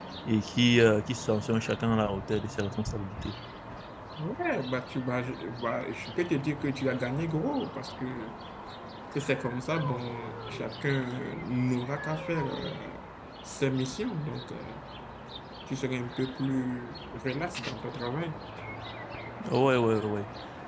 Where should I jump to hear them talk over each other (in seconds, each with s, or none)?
none